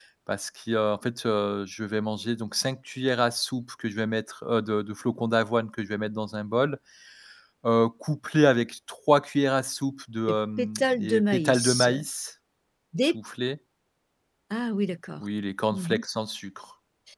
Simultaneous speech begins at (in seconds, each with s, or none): 10.6 s